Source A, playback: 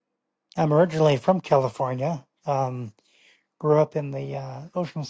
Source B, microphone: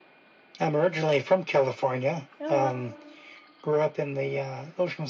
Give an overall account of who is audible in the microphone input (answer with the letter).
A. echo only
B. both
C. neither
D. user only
B